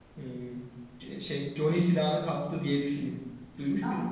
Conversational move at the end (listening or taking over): taking over